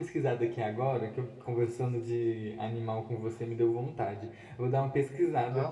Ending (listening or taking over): listening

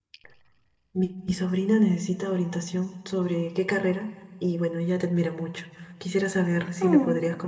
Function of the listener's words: listening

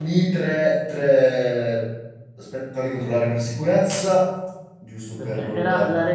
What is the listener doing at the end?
taking over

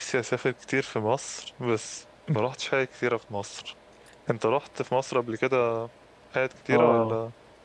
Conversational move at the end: taking over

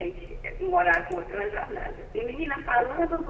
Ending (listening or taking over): listening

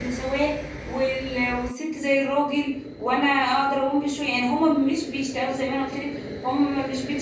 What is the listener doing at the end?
listening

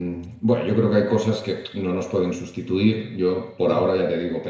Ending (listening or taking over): listening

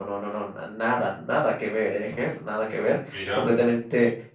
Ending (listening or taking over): listening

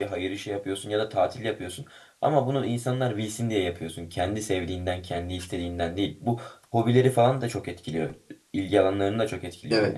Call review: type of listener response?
taking over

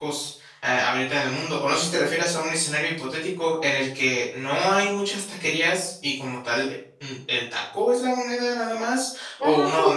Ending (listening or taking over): taking over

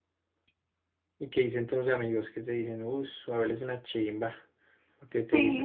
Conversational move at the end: taking over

